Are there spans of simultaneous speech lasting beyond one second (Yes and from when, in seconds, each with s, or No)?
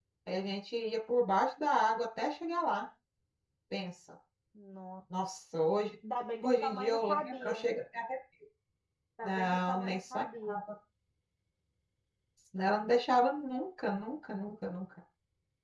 Yes, from 6.4 s